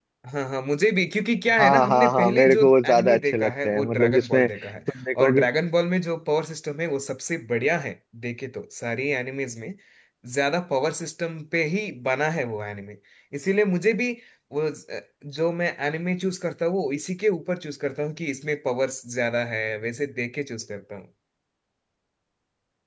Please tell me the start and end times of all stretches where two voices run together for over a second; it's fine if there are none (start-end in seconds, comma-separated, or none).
1.6-4.5